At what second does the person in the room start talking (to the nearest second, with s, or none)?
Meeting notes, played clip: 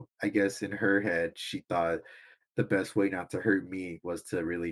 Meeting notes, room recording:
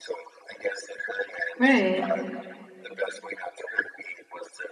2 s